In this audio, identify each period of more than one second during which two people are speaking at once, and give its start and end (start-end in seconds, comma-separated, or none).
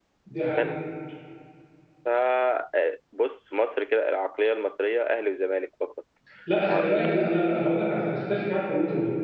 none